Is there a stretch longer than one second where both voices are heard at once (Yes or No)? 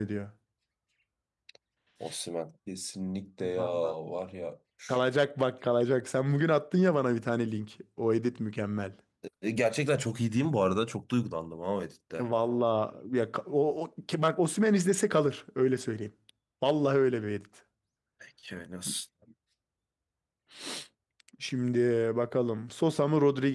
No